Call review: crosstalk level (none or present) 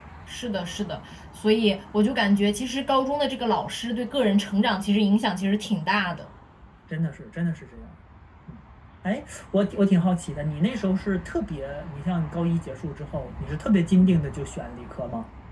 none